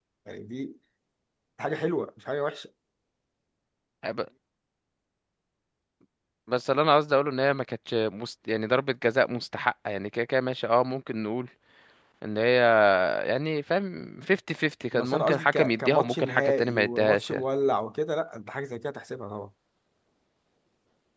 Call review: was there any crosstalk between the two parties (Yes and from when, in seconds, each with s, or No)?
Yes, from 14.9 s